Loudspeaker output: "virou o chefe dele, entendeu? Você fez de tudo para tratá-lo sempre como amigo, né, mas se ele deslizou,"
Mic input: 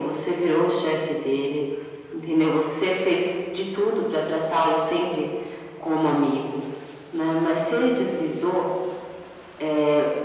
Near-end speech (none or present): none